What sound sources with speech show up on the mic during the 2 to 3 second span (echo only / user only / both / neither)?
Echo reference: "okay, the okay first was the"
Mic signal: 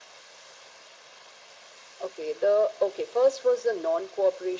echo only